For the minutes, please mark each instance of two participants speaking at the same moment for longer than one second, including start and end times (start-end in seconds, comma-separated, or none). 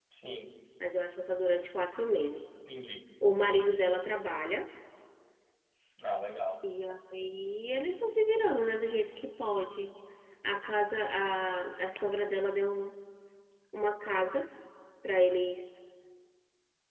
none